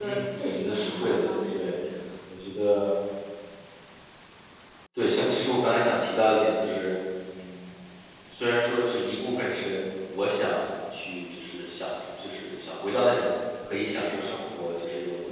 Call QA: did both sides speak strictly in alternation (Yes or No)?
No